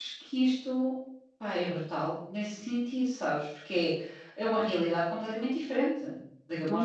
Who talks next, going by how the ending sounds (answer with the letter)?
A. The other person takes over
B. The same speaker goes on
A